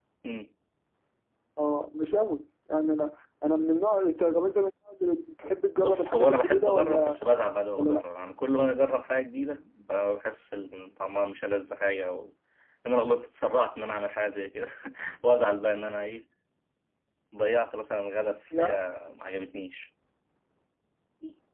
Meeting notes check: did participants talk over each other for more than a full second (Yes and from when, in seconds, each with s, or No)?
Yes, from 5.8 s